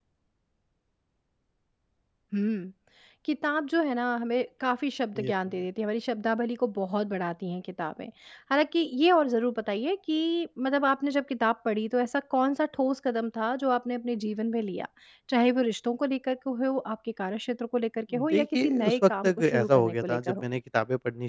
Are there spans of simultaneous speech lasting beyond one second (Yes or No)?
Yes